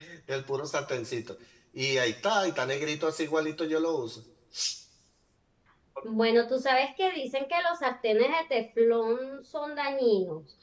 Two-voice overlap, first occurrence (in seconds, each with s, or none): none